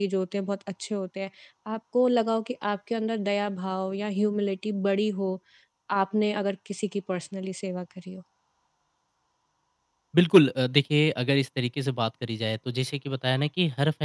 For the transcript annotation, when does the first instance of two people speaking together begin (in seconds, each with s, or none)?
none